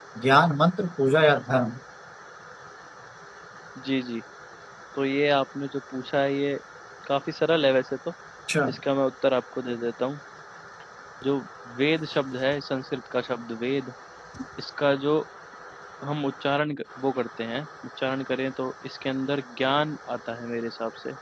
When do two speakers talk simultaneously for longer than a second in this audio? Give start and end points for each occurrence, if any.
none

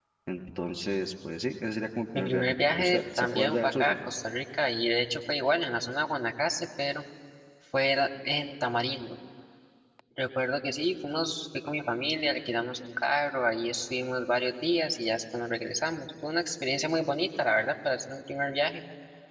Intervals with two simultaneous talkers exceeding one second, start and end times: 2.2-4.0

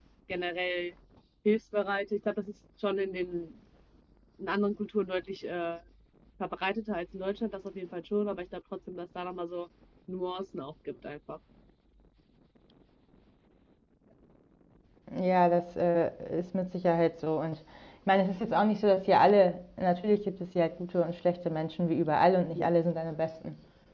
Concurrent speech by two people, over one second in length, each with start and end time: none

